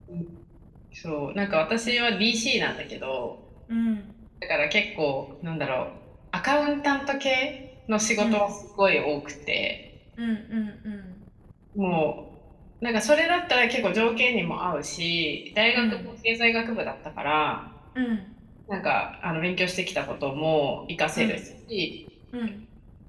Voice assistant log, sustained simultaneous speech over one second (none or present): none